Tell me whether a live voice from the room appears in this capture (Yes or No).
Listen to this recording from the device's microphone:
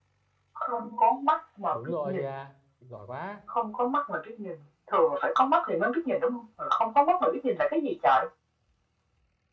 Yes